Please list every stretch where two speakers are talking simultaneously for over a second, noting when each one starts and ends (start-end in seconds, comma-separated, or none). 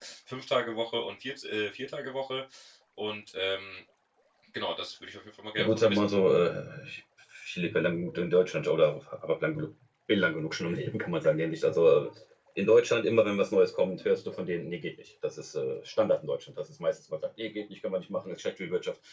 none